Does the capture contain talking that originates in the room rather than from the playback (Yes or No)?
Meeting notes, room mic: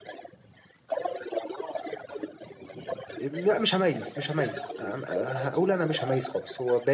Yes